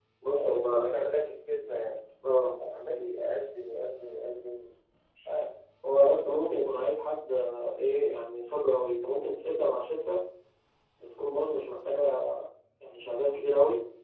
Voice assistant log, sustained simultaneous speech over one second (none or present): none